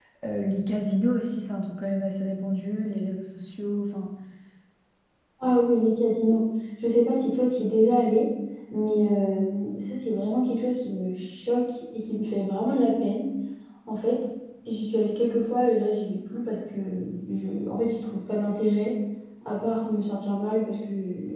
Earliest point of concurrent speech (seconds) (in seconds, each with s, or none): none